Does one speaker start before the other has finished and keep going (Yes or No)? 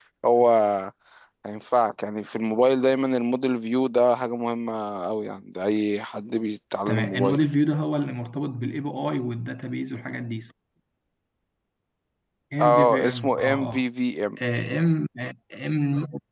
Yes